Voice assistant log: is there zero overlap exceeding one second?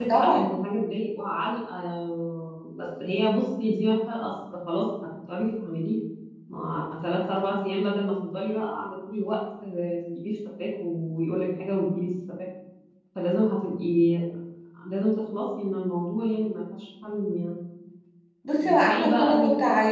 No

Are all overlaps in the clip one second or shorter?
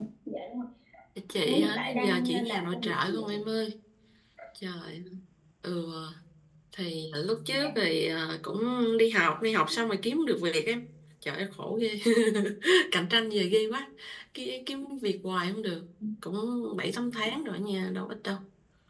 No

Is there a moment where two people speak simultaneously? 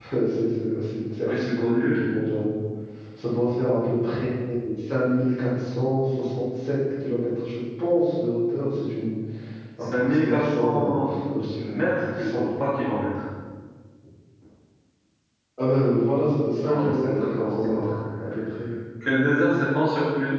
Yes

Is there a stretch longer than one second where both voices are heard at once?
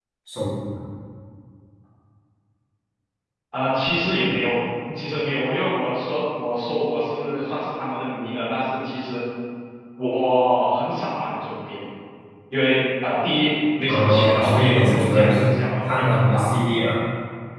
Yes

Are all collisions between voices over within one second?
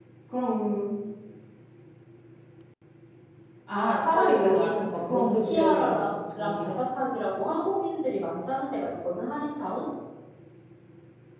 No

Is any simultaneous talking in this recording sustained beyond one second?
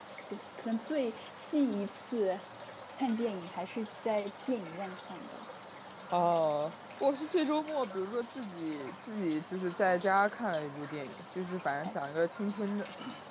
No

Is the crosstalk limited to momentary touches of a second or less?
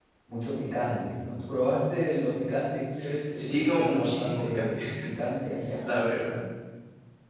No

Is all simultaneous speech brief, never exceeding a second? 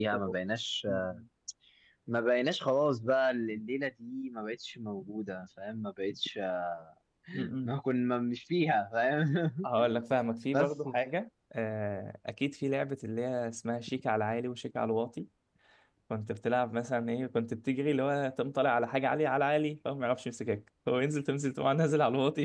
Yes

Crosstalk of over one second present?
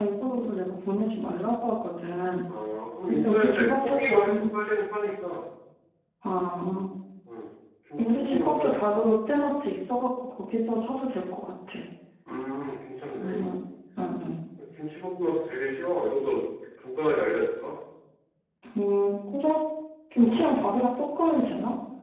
Yes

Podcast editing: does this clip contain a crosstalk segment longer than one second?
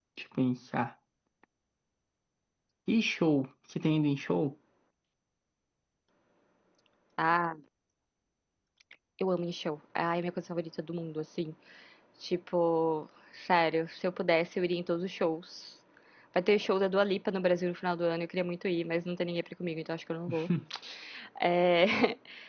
No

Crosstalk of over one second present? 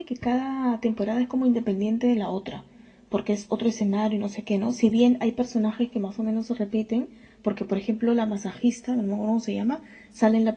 No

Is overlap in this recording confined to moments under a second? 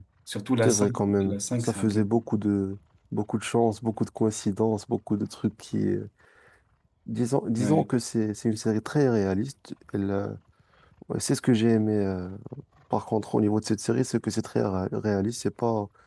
No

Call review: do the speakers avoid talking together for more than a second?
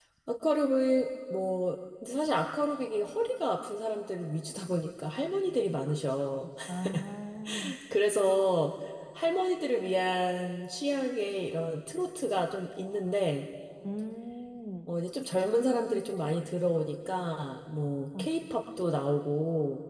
Yes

